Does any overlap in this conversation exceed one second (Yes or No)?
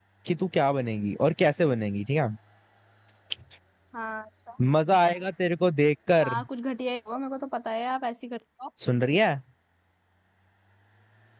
No